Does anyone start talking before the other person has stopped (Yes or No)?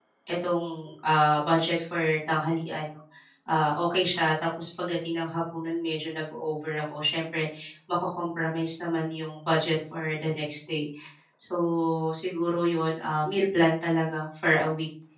No